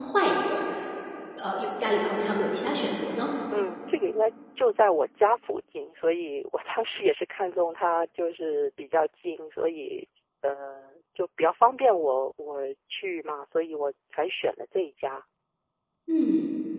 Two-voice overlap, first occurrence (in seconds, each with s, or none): none